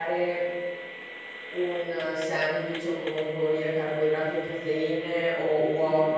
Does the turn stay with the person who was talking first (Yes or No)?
Yes